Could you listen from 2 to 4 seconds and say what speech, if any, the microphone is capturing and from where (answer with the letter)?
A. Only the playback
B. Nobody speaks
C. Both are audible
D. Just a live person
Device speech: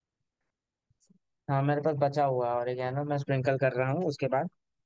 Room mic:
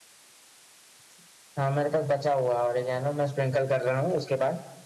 A